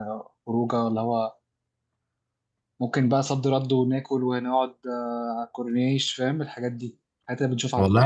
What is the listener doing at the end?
taking over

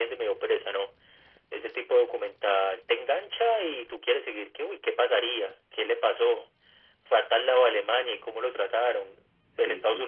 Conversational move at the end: listening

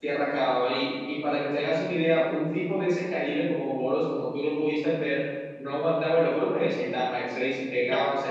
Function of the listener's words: listening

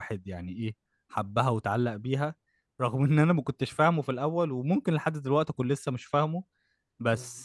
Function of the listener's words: listening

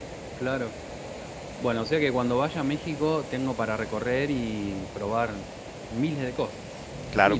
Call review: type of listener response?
taking over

